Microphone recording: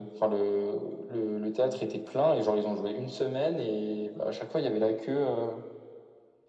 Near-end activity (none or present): none